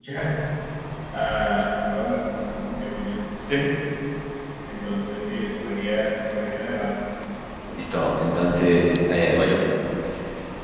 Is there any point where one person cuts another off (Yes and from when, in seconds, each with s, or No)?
No